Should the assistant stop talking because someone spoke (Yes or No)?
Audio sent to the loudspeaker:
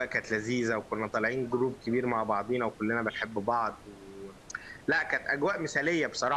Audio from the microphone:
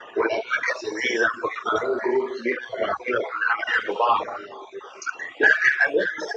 No